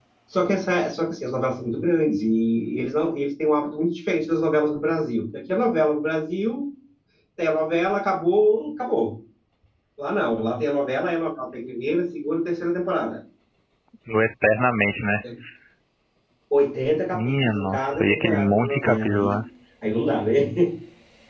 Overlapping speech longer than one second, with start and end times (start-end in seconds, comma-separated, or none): 17.1-19.4